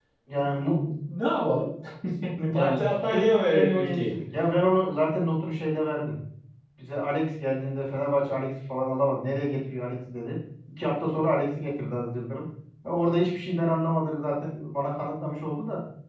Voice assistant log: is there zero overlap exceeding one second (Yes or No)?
No